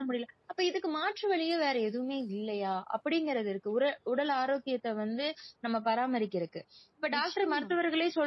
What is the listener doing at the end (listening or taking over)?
listening